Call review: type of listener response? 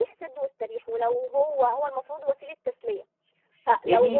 taking over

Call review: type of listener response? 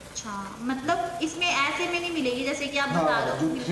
taking over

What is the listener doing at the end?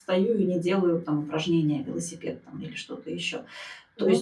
listening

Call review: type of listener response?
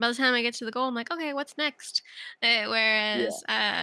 listening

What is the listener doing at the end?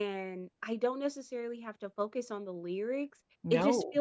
listening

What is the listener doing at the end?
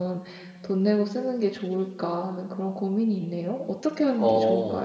taking over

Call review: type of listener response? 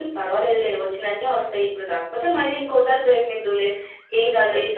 listening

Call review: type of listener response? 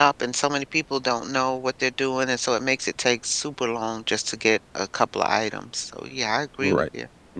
taking over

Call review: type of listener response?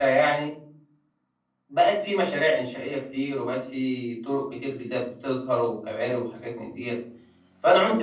listening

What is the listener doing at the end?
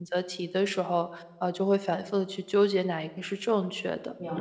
taking over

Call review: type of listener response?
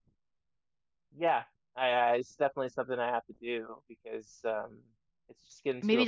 taking over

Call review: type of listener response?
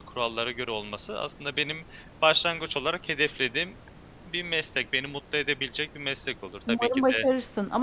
taking over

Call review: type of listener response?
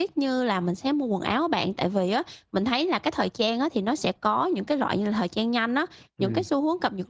listening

